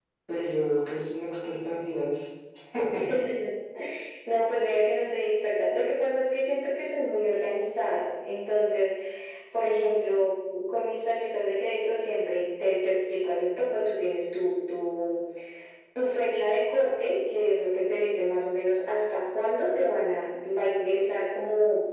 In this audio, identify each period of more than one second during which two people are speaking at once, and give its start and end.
none

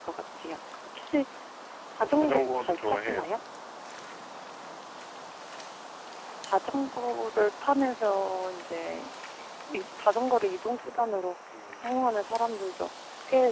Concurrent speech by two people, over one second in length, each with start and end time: 2.0-3.3

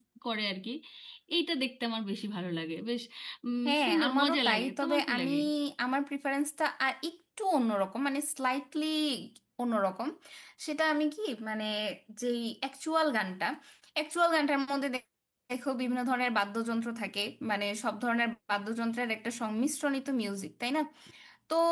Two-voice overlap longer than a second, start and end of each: 3.7-5.3

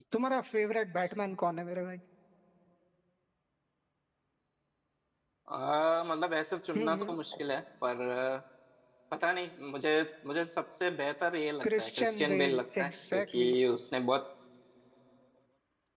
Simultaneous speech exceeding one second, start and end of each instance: 11.6-13.5

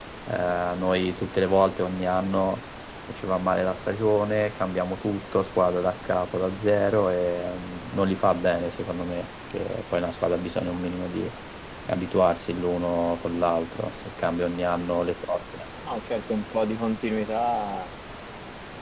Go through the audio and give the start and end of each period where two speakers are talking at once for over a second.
none

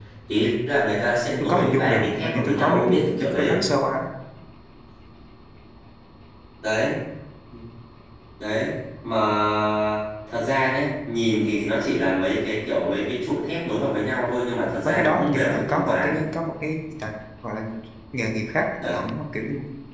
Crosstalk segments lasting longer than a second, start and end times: 1.4-3.5, 14.8-16.2

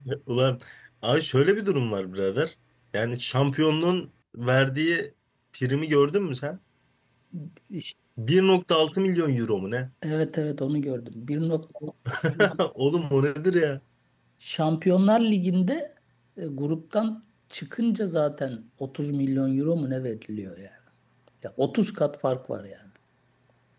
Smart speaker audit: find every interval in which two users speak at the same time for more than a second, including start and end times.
none

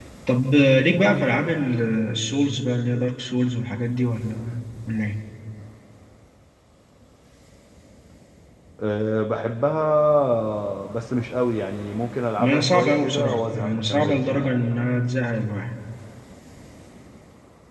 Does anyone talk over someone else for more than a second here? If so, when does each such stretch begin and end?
12.4-14.5

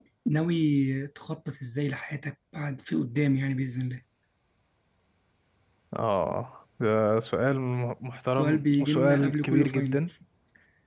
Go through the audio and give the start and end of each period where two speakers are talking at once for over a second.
8.3-10.0

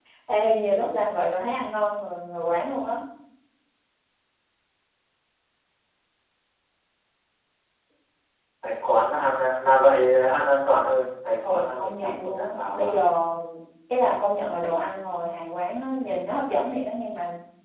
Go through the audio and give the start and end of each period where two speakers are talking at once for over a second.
11.4-12.9

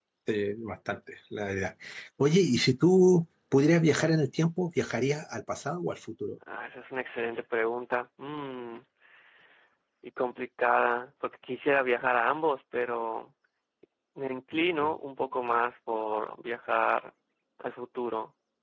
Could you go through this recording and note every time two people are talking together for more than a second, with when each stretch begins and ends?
none

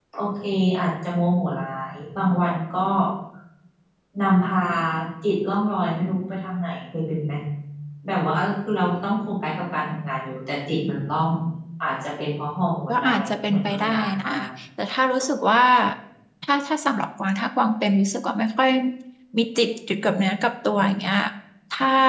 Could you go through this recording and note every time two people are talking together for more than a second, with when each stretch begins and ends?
12.9-14.3

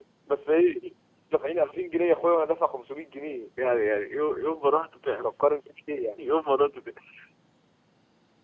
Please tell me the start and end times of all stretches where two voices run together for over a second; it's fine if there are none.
none

